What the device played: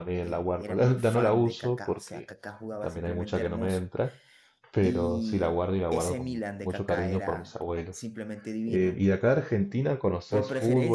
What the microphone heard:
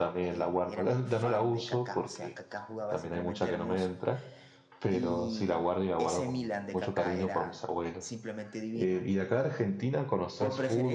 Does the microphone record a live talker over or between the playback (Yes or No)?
No